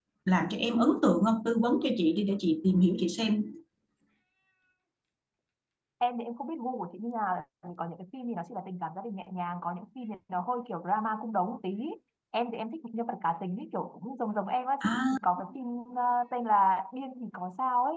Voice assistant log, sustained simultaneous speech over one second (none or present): none